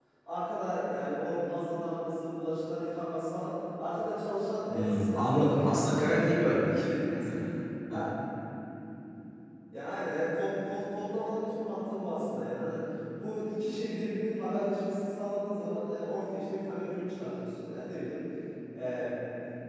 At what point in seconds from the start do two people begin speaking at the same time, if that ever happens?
4.7 s

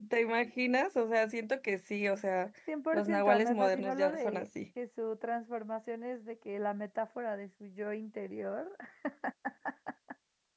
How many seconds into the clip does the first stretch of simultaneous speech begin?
2.9 s

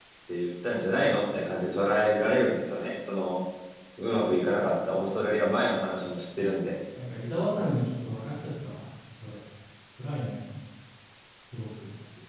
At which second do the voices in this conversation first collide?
none

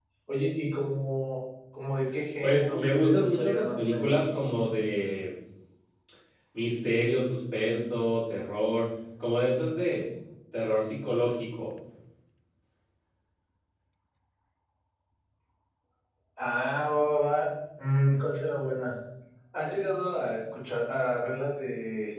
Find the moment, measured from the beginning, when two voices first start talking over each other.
2.4 s

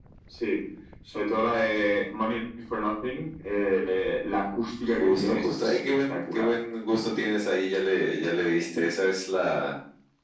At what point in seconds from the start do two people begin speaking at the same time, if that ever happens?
5.0 s

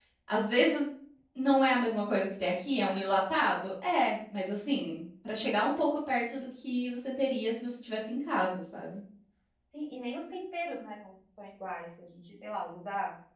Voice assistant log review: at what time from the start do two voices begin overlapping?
none

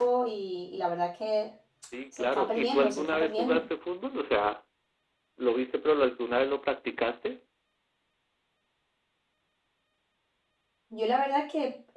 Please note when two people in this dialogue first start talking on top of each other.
2.2 s

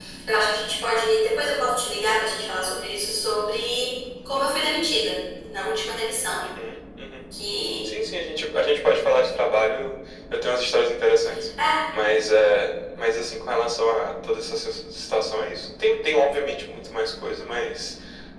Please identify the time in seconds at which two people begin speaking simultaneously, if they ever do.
none

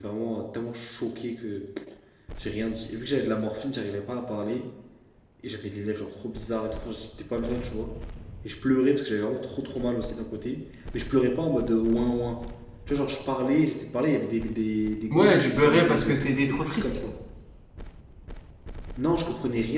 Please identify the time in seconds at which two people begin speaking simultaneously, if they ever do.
15.1 s

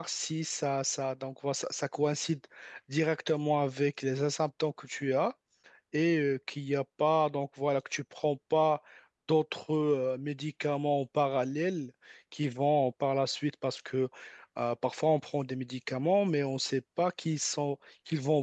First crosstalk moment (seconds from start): none

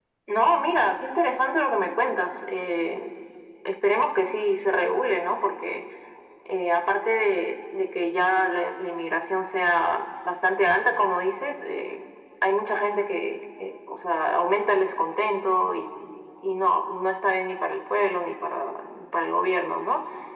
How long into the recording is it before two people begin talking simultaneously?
none

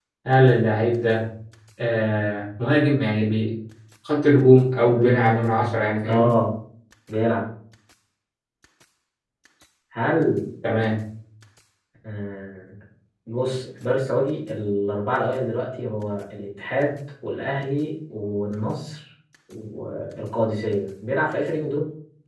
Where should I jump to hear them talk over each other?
4.9 s

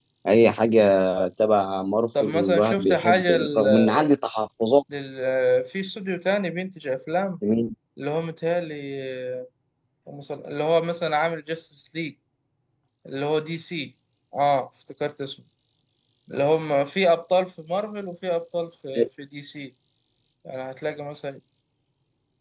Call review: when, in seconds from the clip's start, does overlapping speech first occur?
2.2 s

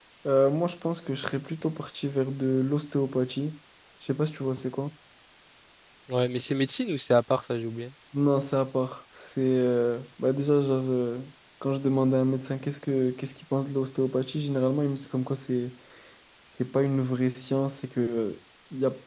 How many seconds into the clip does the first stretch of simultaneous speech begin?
none

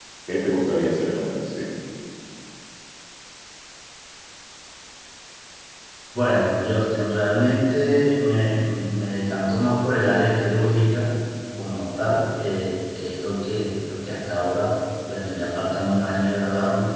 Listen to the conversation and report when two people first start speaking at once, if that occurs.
none

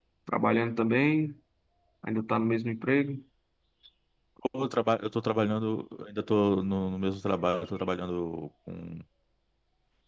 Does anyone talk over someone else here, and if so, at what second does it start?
none

